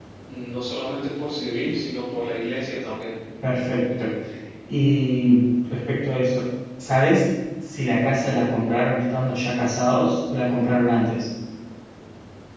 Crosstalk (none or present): none